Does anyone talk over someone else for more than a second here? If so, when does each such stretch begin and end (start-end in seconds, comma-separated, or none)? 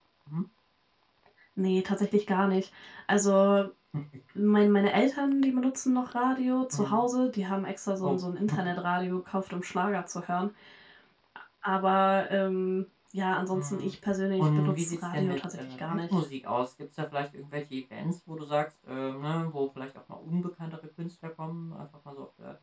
14.4-16.2